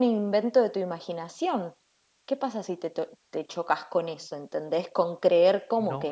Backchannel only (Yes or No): No